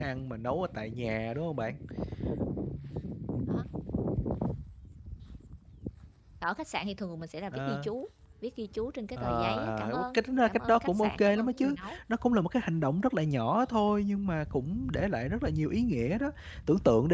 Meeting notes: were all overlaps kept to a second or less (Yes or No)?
No